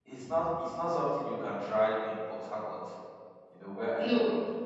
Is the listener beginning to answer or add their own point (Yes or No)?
No